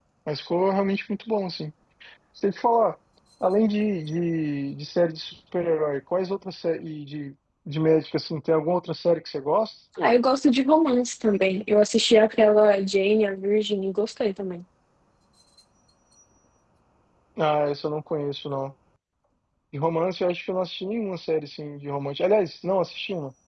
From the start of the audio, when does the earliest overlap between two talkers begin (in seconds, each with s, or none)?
none